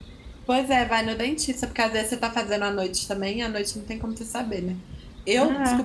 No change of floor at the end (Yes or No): Yes